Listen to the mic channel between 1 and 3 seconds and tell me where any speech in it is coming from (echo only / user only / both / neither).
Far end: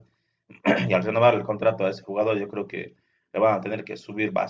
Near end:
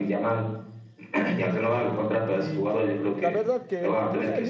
both